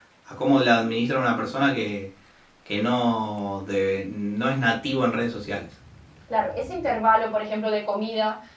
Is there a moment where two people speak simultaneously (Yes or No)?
No